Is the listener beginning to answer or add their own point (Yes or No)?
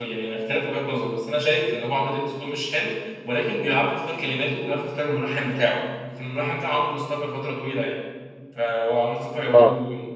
No